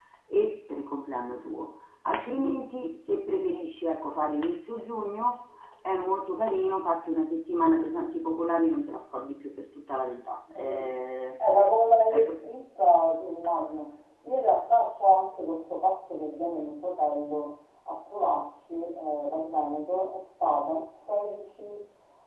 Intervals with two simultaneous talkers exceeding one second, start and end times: none

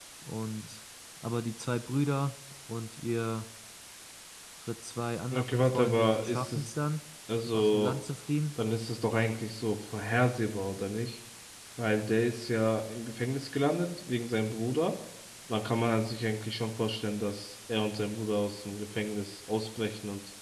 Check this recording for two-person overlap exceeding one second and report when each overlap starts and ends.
5.3-6.7

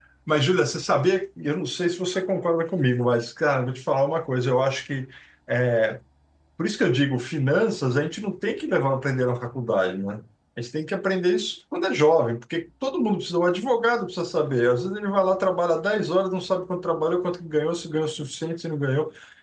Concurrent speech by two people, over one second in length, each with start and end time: none

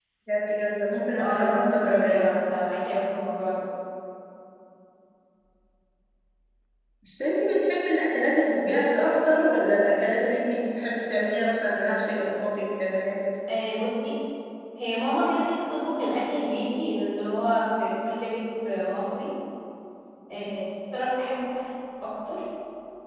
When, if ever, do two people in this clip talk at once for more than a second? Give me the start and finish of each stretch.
1.2-2.4

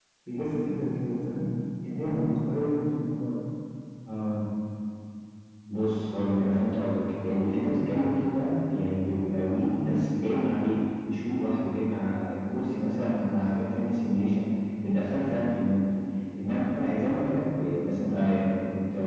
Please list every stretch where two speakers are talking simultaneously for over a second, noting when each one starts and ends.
none

